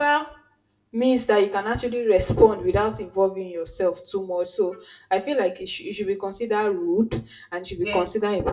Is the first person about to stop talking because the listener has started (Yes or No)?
No